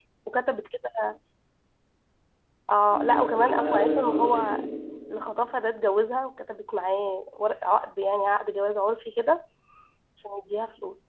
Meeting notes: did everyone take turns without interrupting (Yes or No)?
No